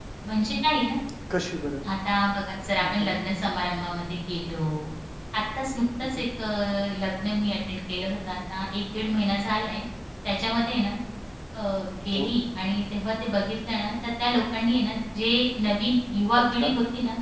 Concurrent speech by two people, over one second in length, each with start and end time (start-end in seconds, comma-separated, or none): none